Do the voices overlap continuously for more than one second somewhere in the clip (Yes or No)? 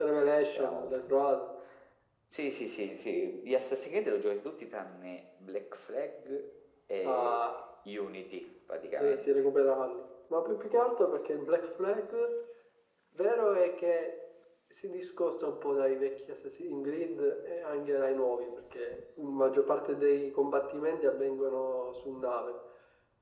No